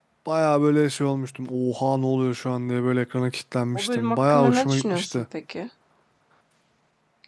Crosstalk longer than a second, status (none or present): present